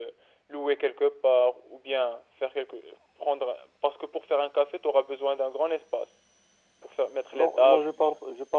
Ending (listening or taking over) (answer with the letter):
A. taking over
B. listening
A